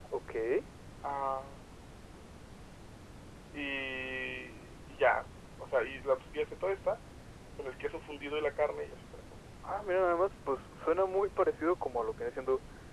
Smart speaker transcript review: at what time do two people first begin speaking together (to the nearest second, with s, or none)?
none